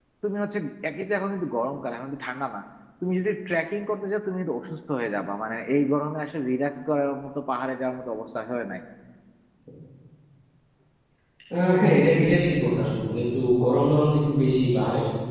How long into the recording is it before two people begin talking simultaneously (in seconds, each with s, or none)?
none